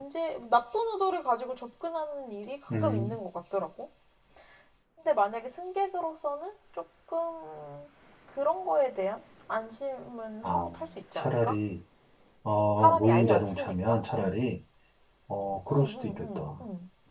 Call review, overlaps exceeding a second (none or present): present